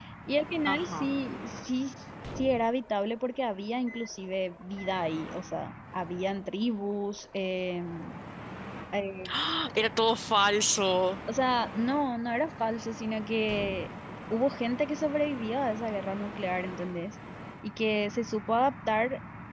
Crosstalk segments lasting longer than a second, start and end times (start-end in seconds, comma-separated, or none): none